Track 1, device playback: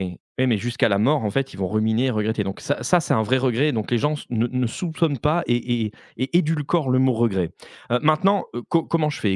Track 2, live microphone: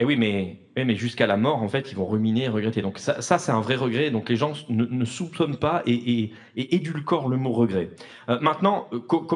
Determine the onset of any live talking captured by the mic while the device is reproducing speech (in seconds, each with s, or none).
none